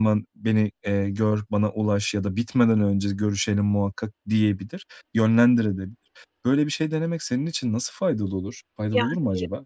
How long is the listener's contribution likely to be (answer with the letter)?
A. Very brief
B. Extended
B